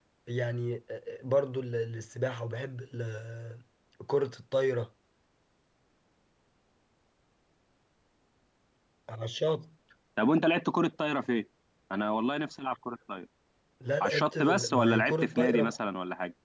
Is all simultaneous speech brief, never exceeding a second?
No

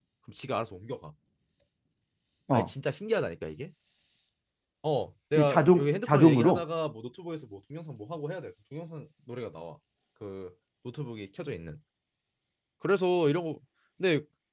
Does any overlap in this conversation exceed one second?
Yes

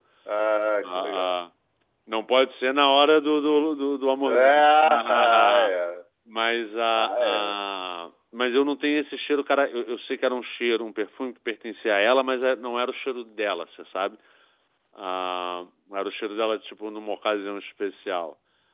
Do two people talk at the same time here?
Yes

